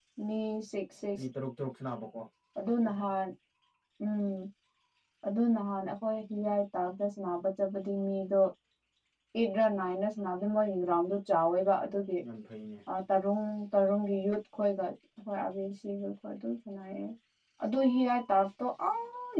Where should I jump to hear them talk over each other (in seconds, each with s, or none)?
none